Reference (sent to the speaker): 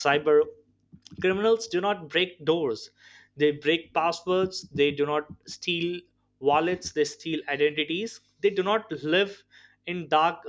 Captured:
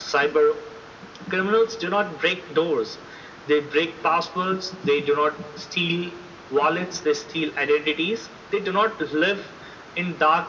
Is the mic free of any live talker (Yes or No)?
Yes